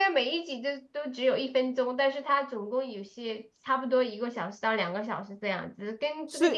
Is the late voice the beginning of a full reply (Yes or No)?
Yes